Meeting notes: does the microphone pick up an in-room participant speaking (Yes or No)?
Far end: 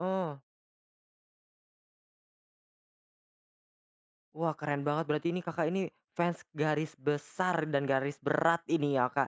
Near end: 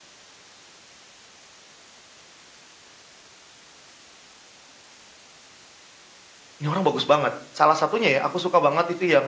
Yes